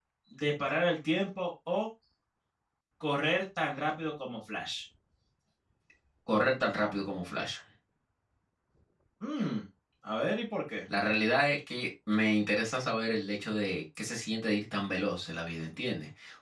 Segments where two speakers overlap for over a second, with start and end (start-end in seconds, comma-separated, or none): none